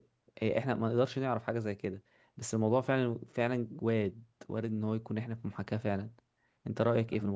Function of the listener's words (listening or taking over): taking over